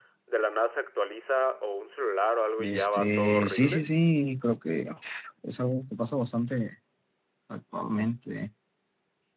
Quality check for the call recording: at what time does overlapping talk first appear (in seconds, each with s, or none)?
2.6 s